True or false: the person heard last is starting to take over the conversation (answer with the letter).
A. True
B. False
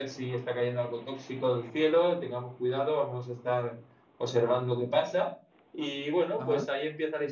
B